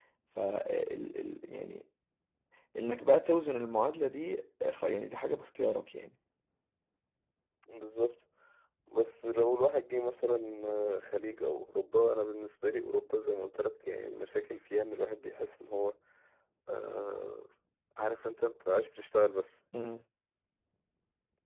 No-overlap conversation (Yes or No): Yes